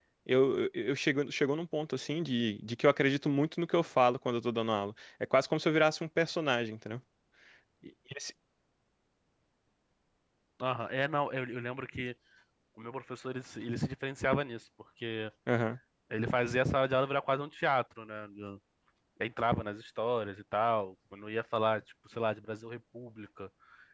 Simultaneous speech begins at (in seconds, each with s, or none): none